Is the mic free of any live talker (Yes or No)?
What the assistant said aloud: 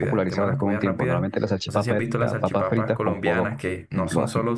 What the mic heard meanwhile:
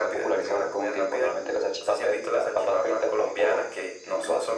Yes